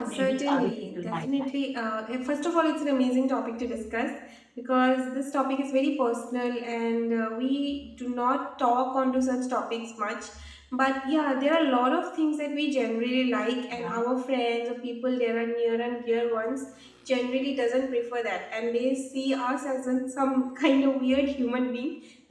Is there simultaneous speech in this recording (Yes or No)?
Yes